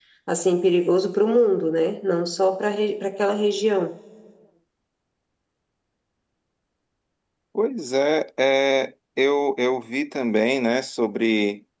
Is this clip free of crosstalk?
Yes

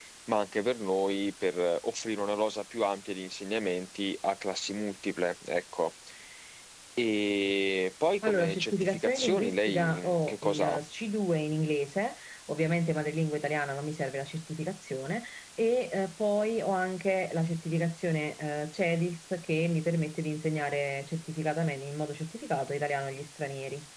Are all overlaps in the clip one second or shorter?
No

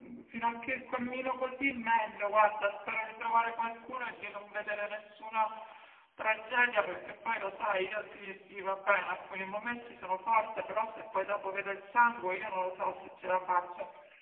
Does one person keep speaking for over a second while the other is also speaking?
No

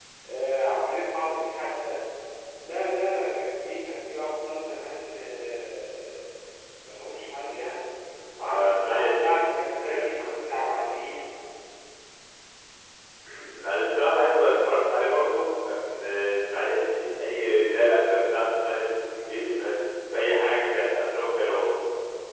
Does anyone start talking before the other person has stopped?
Yes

